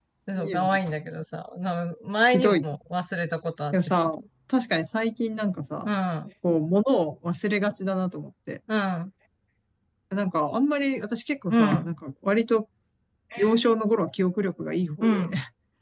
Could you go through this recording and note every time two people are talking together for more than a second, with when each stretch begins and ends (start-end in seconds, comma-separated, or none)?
none